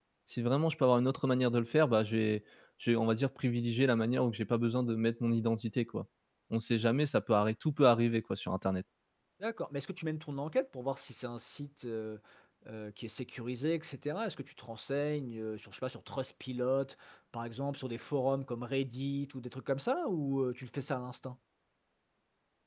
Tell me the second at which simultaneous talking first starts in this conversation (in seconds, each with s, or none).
none